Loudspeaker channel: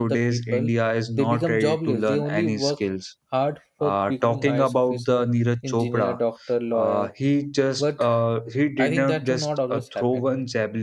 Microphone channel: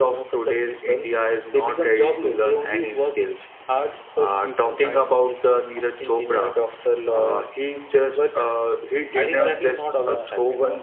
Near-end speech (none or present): present